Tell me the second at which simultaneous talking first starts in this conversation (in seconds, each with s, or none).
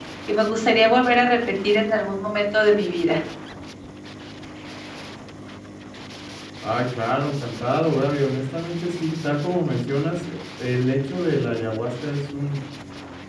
none